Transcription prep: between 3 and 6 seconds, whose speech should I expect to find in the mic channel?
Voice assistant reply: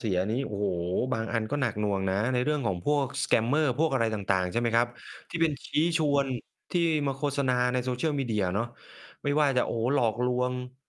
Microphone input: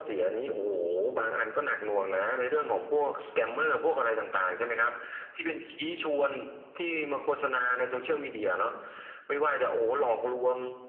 echo only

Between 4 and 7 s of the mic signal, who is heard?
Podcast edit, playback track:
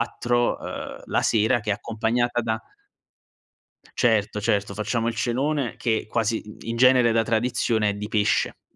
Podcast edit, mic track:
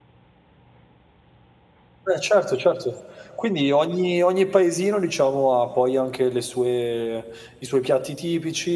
user only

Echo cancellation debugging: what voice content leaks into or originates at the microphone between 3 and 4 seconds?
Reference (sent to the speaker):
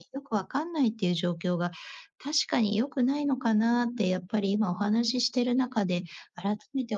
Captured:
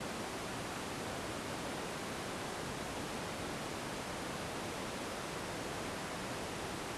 neither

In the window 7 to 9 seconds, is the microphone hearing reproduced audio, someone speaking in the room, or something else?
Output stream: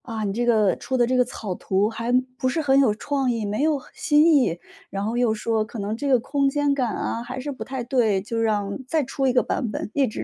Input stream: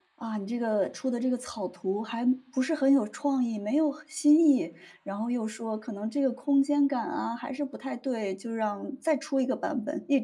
echo only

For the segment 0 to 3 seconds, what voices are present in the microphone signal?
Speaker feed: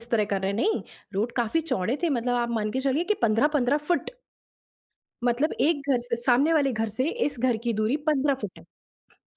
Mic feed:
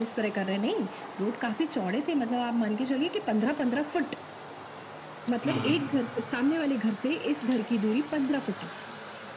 echo only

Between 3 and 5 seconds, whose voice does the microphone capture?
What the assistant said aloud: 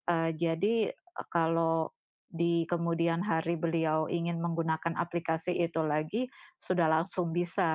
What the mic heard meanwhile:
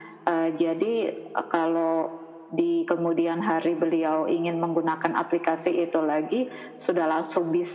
echo only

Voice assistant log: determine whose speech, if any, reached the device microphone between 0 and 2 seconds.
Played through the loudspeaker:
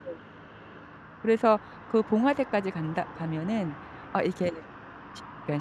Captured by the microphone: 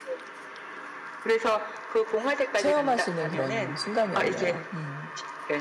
echo only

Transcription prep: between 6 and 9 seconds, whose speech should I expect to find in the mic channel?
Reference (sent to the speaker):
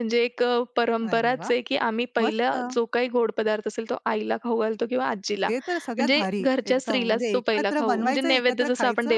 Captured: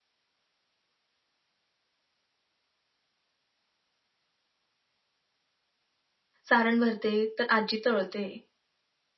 user only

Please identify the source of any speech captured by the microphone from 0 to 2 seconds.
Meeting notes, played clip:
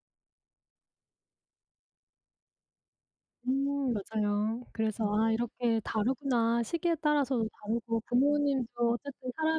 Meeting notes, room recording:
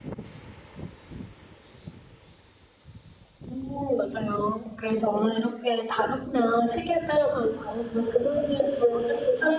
neither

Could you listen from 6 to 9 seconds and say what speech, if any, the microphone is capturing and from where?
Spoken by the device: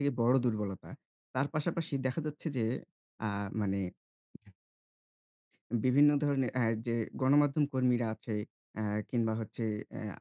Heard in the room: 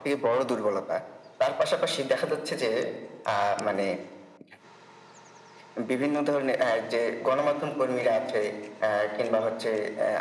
echo only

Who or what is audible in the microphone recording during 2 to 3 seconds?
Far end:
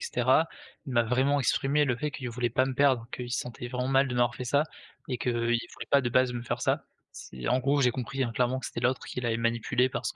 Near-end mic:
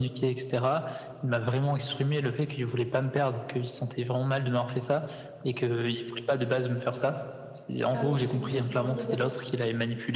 echo only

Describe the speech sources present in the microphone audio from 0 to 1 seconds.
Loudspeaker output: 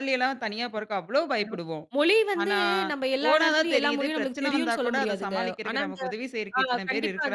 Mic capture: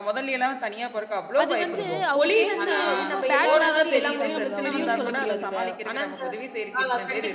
echo only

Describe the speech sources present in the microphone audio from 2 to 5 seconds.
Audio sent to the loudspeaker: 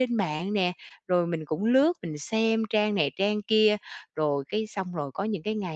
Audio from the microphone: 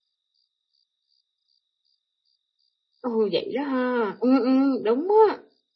user only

